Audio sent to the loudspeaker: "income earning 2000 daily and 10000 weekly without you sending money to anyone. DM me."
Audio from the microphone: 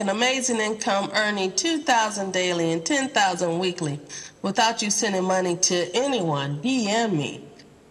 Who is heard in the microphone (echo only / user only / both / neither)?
echo only